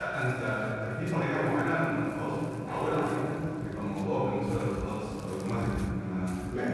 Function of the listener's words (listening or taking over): listening